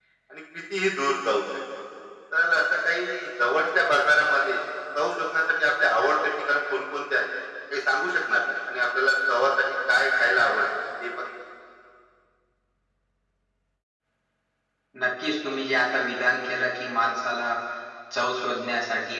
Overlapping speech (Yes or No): No